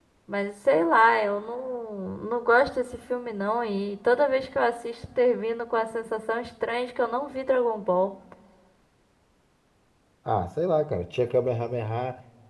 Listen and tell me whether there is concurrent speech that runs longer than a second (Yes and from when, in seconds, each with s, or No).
No